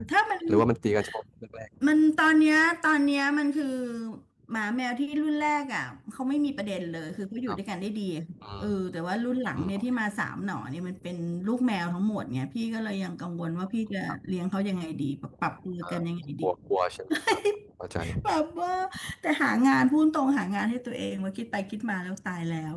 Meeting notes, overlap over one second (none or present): none